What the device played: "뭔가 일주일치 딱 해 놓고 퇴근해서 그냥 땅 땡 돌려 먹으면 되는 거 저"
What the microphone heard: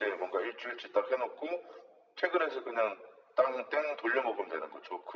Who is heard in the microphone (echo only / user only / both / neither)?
echo only